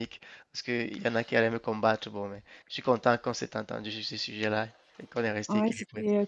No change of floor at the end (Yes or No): No